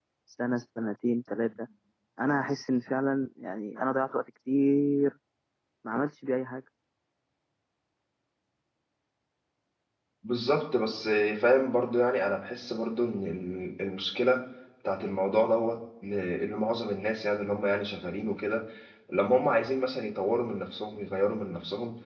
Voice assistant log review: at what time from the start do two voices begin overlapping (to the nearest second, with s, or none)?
none